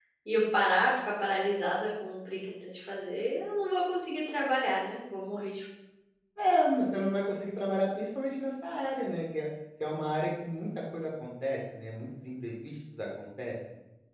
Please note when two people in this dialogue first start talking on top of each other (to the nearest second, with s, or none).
none